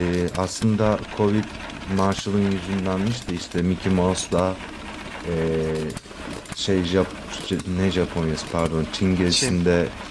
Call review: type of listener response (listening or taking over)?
listening